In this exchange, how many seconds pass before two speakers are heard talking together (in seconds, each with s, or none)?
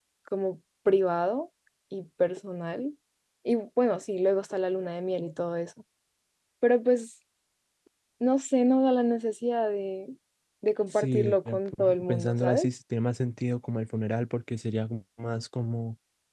10.9 s